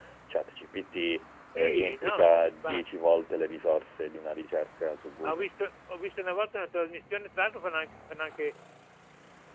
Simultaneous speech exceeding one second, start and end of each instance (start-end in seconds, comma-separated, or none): 1.6-2.8